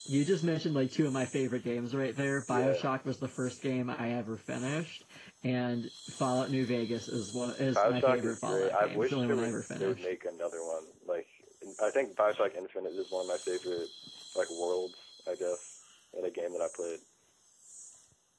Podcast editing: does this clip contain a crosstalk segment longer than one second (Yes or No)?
Yes